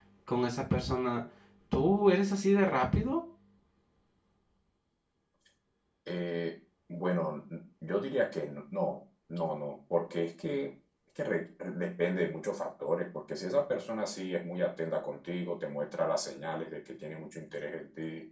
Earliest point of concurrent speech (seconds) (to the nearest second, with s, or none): none